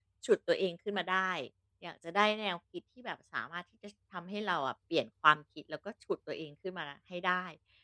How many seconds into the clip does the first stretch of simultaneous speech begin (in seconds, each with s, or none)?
none